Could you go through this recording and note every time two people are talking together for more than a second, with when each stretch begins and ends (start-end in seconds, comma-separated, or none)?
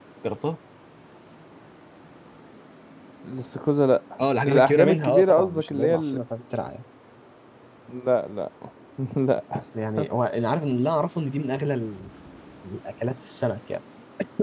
4.2-6.2